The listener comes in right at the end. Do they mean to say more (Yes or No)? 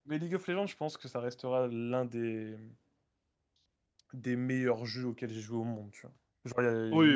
Yes